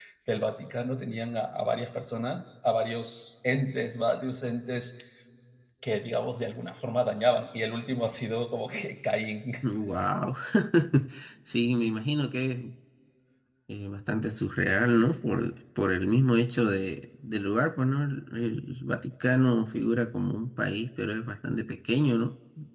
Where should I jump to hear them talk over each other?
none

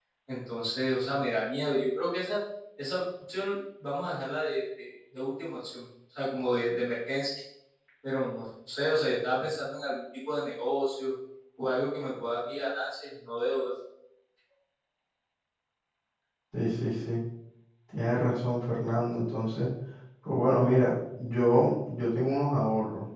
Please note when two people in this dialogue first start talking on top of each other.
none

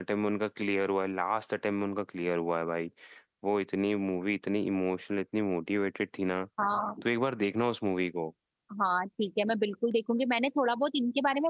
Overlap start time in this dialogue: none

